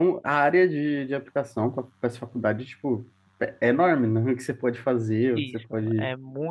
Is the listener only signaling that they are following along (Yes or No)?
No